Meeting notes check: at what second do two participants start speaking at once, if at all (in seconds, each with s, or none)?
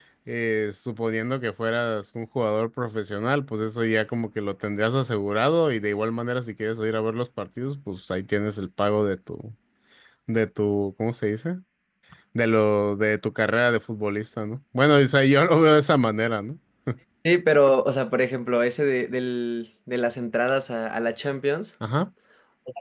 none